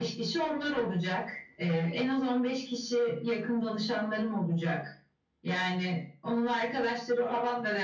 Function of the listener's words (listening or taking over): listening